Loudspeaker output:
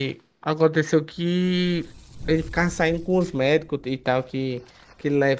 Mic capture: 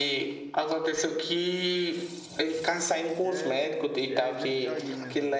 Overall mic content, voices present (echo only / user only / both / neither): both